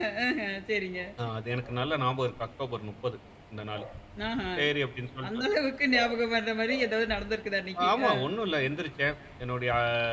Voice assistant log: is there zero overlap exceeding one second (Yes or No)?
Yes